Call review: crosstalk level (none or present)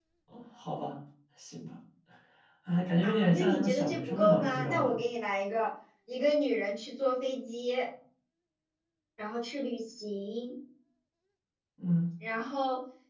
present